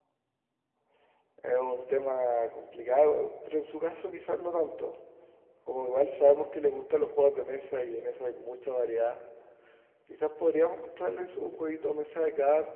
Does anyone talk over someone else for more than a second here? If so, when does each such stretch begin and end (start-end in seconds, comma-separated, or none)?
none